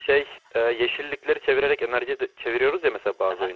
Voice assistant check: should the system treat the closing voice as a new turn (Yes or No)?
Yes